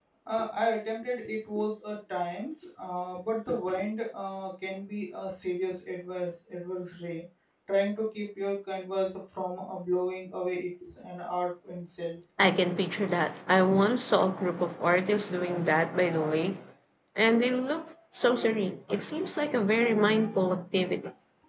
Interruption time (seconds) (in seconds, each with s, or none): none